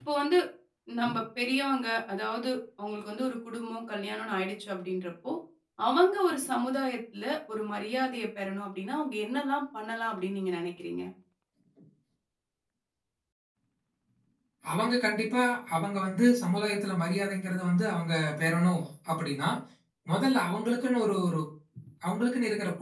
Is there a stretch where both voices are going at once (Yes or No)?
No